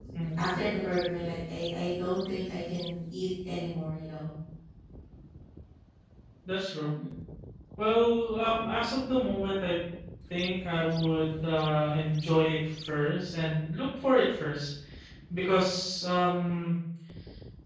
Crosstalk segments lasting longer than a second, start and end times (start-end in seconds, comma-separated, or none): none